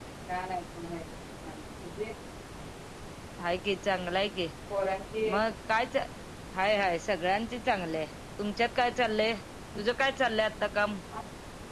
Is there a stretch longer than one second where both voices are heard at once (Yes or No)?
No